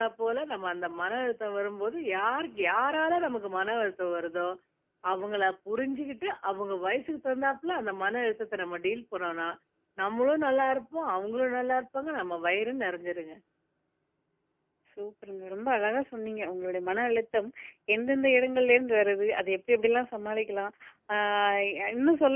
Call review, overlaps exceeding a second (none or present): none